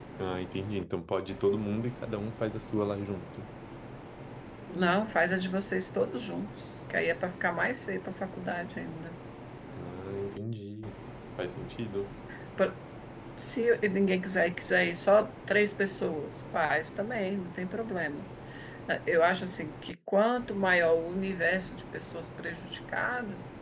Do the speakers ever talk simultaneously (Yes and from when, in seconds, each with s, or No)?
No